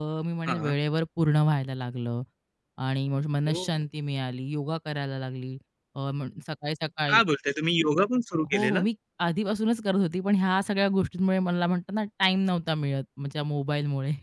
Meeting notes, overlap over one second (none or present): none